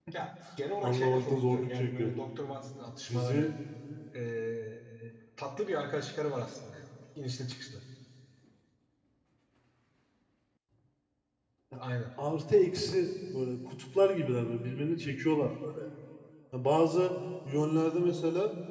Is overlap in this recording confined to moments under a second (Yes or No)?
No